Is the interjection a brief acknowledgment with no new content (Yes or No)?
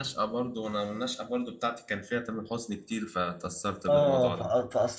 No